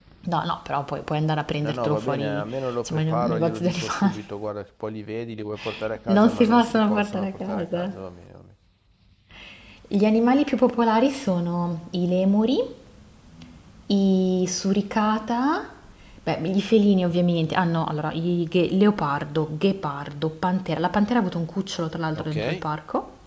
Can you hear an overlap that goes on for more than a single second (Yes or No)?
Yes